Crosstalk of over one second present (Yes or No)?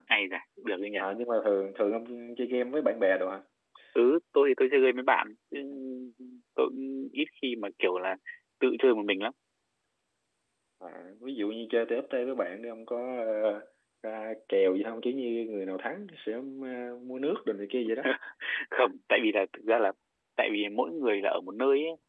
No